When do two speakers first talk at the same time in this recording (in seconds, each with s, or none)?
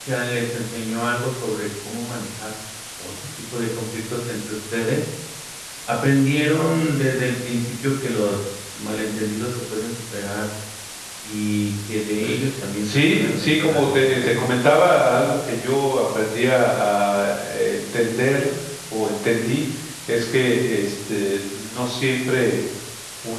12.8 s